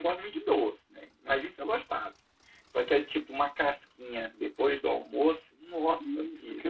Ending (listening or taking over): taking over